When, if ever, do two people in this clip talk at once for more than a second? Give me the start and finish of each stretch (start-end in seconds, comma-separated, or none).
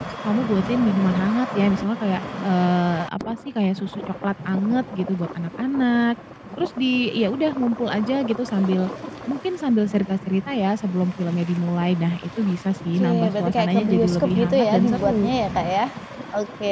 12.9-15.3